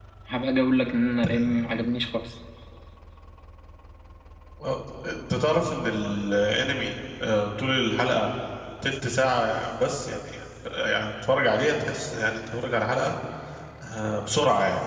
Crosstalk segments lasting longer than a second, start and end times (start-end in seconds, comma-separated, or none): none